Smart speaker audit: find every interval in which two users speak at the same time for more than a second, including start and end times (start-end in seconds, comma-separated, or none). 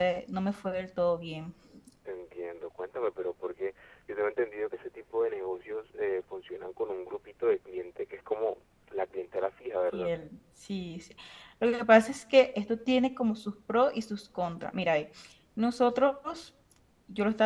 none